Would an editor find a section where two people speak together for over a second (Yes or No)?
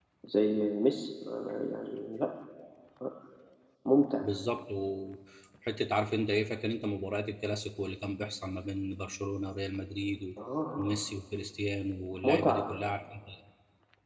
No